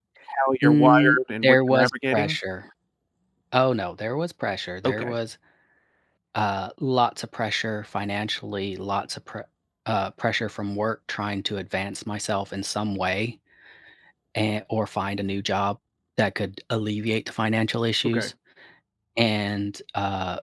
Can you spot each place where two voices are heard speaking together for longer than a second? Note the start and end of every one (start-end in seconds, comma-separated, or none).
0.6-2.4